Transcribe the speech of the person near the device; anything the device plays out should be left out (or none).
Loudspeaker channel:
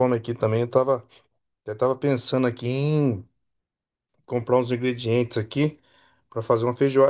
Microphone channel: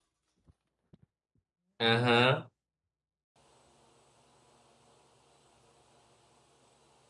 Aham.